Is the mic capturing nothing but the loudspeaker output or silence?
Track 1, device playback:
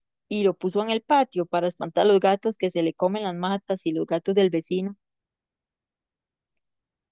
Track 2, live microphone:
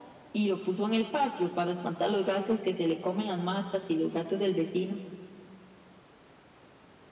Yes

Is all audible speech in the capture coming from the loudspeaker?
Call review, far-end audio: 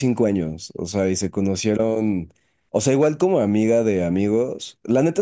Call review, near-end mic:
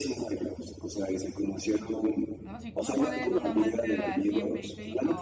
No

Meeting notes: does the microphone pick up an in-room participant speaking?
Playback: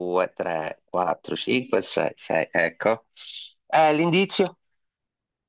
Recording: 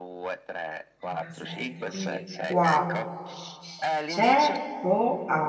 Yes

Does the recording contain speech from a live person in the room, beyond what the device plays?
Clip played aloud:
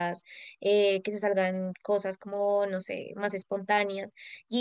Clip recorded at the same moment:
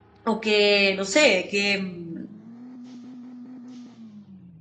Yes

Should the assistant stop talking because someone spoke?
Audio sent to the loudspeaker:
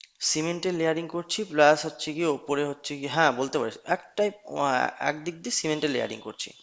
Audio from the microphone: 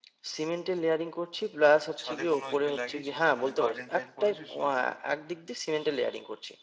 Yes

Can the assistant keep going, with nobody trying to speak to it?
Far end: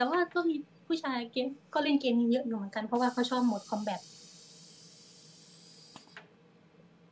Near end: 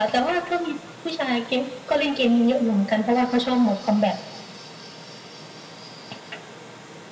Yes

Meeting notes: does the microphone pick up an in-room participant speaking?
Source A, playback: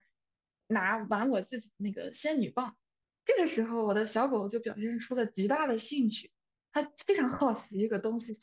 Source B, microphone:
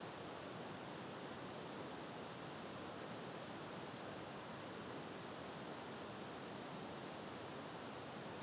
No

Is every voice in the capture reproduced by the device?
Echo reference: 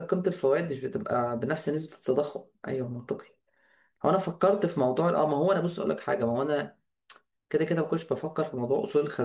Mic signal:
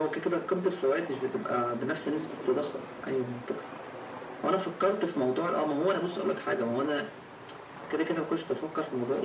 Yes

